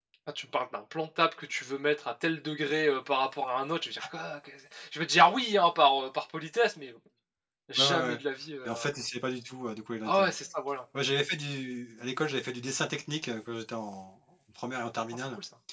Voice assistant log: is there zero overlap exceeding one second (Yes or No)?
Yes